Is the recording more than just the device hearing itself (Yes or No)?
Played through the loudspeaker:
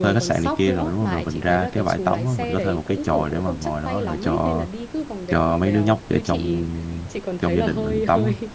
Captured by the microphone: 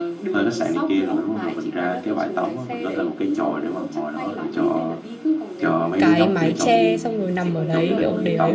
Yes